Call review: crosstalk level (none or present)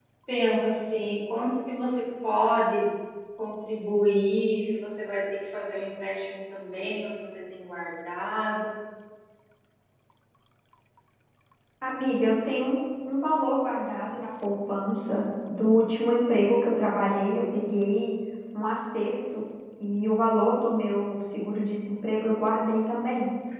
none